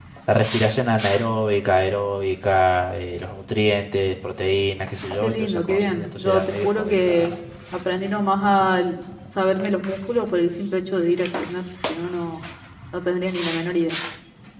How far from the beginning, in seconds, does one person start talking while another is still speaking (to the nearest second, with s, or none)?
5 s